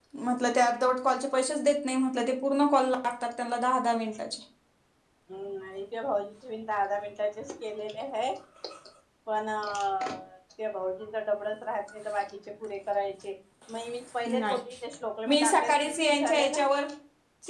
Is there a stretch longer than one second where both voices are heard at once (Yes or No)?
Yes